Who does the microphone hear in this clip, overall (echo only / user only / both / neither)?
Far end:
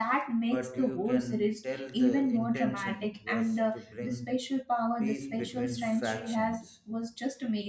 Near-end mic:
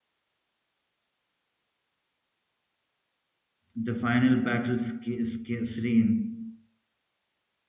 user only